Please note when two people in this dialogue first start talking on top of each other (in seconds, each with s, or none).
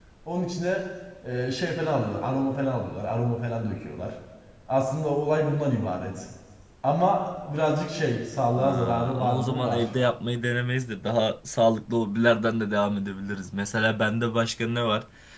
8.6 s